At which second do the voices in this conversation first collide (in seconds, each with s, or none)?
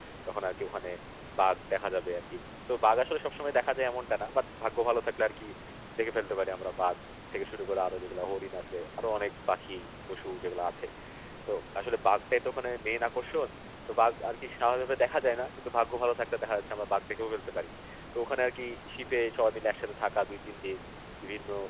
none